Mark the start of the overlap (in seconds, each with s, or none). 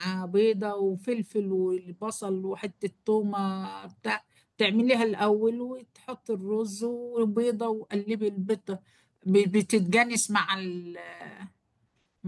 none